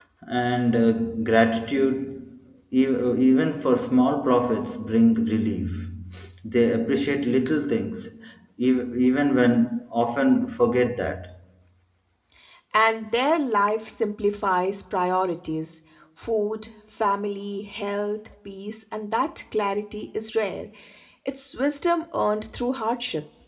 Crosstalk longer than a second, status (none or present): none